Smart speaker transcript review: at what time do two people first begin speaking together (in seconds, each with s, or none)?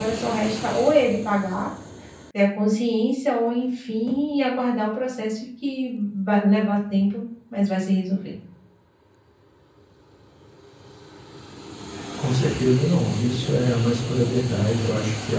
none